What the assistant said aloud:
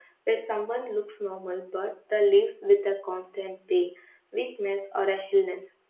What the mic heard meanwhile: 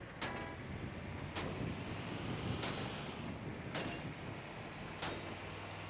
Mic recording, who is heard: neither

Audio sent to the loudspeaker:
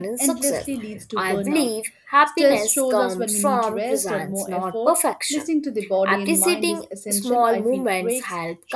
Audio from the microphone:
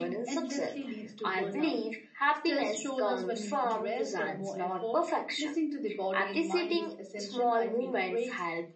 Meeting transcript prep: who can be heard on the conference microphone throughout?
echo only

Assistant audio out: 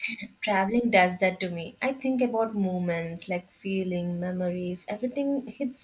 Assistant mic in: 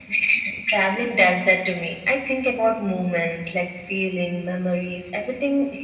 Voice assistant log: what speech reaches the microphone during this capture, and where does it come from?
echo only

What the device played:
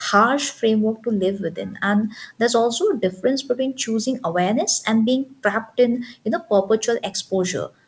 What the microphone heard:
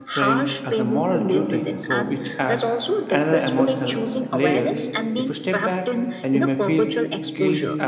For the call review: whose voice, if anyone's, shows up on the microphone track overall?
both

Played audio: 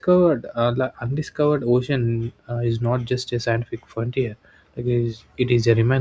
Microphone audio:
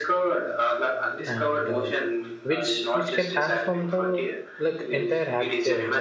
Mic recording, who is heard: both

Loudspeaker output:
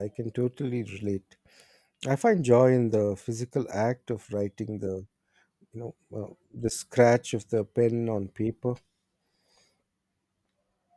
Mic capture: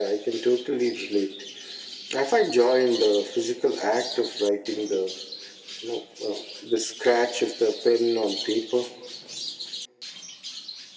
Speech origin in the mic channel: echo only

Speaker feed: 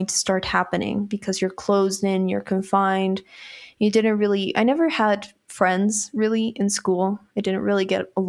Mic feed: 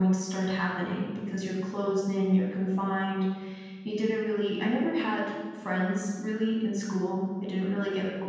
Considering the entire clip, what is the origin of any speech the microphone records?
echo only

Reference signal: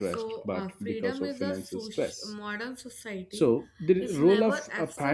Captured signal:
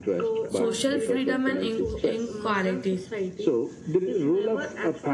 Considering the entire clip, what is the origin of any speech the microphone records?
both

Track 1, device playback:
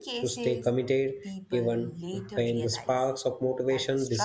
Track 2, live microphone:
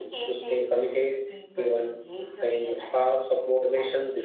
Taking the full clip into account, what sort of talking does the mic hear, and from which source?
echo only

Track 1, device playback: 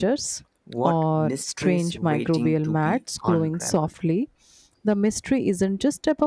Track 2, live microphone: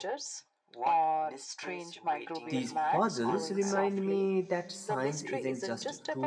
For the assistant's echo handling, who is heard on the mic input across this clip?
both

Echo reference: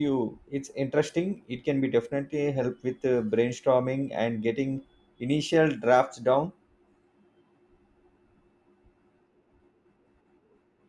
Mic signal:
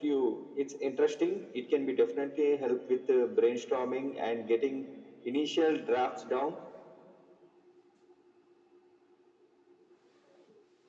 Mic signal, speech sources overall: echo only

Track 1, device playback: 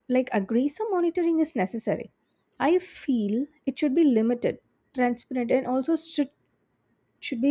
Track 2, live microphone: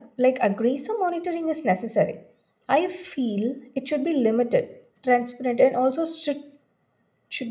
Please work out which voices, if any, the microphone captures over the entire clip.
echo only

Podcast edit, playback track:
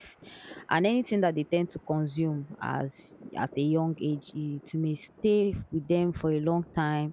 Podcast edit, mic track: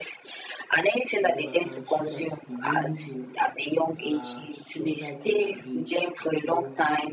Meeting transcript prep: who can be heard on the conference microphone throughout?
both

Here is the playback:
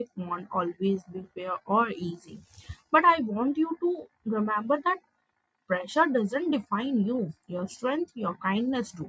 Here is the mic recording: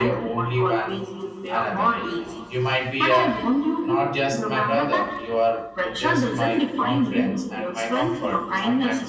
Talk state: both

